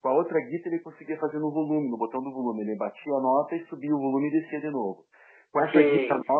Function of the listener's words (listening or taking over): listening